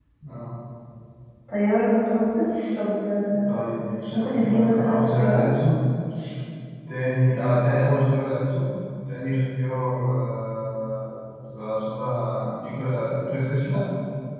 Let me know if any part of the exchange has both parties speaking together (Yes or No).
Yes